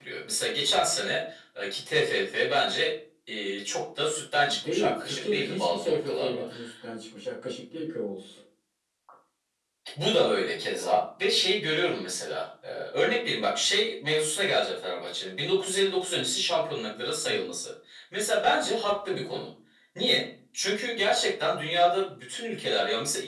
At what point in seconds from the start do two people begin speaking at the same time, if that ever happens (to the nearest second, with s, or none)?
4 s